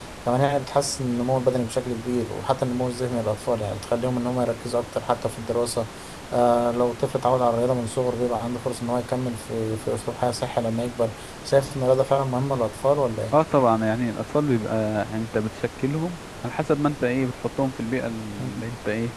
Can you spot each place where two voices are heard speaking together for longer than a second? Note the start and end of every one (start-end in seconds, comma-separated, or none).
none